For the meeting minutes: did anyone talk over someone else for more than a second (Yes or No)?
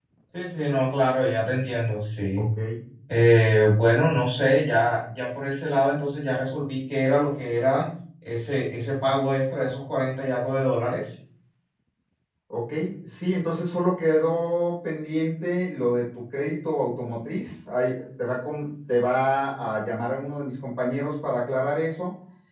No